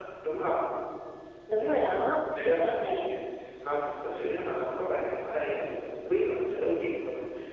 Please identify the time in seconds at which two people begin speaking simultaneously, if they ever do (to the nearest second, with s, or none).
2 s